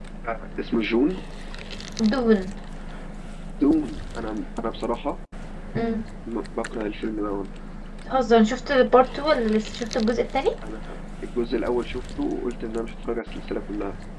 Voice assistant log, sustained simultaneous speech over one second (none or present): none